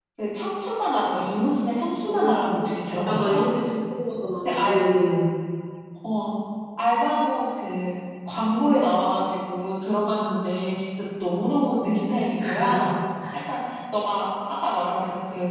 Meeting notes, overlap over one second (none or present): none